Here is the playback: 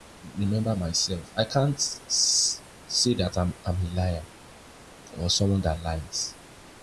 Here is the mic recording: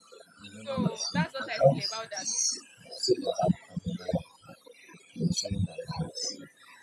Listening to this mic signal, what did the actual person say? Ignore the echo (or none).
so that's what i feel about that